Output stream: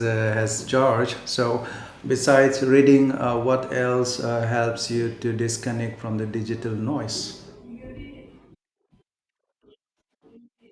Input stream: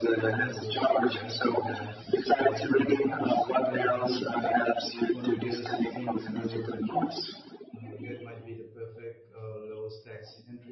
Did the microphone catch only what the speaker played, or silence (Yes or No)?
No